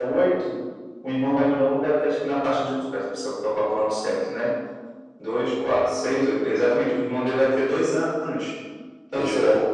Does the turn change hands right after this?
No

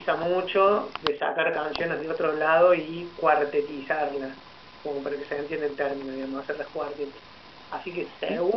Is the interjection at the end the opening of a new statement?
No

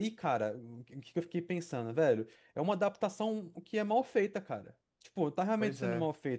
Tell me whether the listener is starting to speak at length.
No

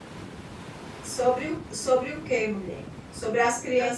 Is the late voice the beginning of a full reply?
No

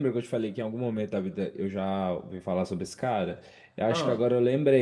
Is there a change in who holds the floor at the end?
No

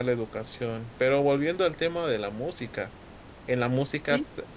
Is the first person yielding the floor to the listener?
No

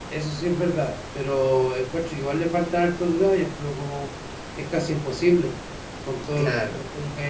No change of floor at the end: Yes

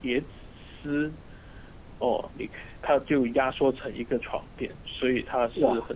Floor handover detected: No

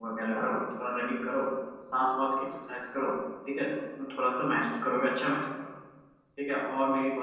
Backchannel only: Yes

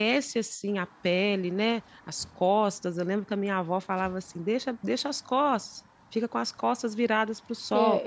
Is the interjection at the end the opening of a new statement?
Yes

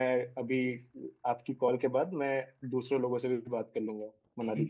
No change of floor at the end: No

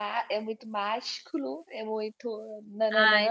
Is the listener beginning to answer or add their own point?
Yes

